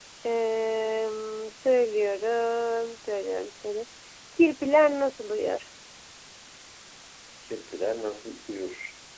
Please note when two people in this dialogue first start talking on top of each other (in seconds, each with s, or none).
none